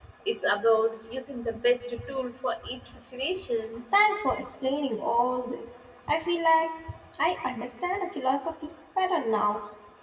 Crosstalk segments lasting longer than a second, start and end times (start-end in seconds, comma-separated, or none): none